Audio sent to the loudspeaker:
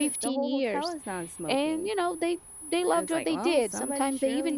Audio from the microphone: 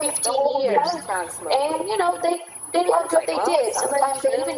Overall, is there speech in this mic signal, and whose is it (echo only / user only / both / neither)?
both